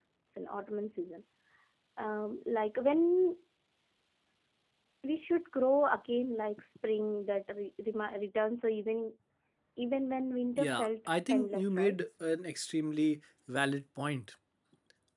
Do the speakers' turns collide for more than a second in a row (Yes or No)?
Yes